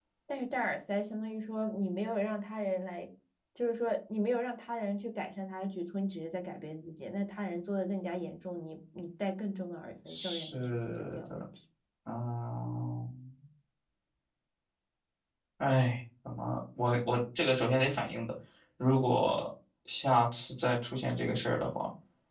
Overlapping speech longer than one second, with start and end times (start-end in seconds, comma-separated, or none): 10.1-11.4